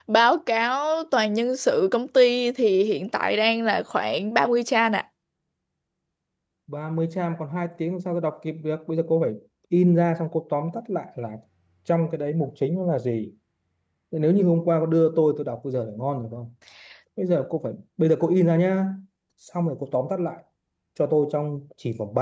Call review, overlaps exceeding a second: none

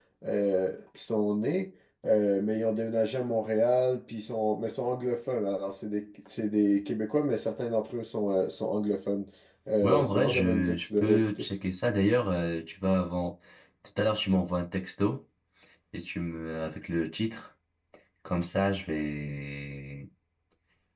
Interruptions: present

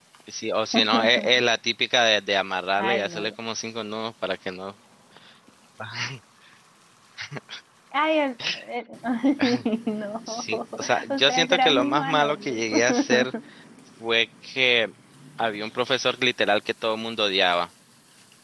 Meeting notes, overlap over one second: present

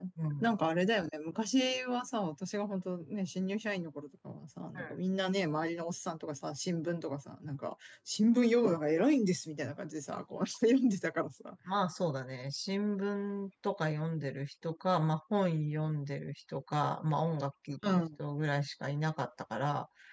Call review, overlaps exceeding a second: none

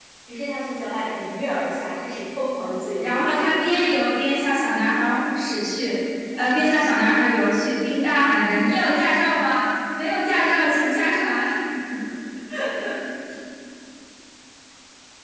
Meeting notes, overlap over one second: none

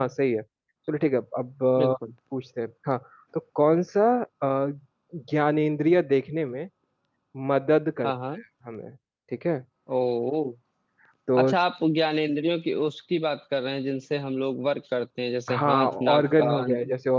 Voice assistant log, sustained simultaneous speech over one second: present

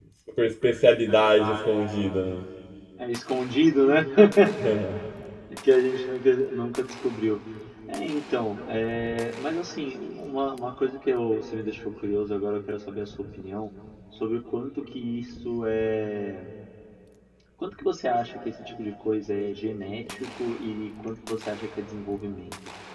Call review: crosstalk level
none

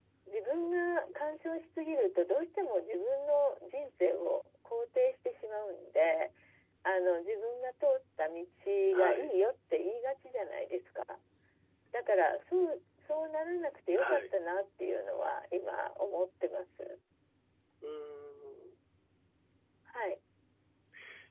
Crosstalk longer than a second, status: none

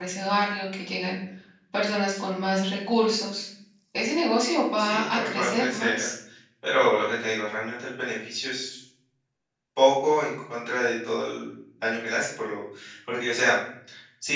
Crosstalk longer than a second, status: present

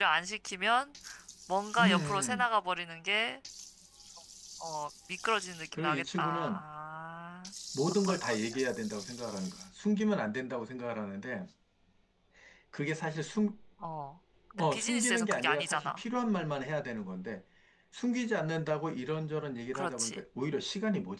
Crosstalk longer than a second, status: present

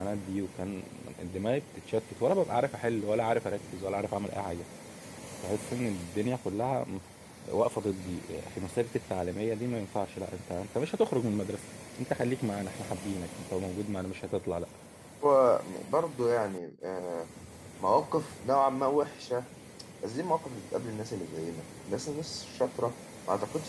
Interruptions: none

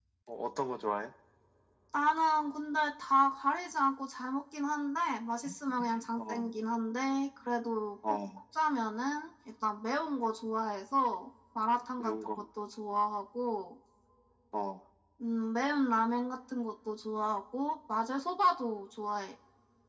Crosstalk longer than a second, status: none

